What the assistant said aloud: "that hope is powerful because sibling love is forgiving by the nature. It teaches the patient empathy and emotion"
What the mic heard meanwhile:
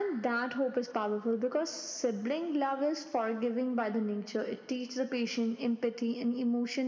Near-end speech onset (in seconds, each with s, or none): none